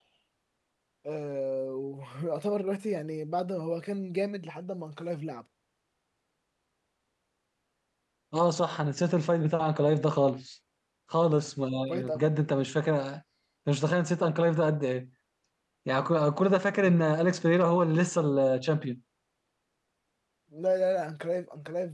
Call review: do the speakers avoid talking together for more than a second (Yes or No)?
Yes